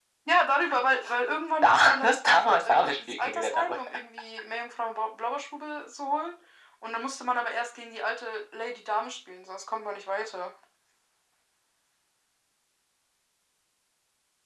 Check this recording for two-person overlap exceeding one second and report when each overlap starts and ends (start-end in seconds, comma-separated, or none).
1.6-3.8